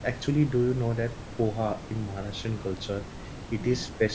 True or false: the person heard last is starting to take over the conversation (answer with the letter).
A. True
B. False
A